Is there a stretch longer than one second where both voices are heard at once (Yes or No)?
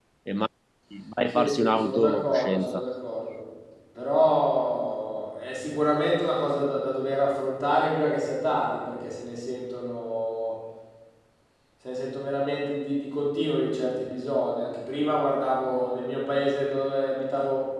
Yes